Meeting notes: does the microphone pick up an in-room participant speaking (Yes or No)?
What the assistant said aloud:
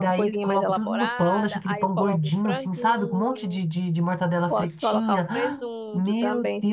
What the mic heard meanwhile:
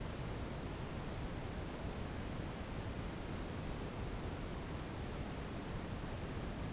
No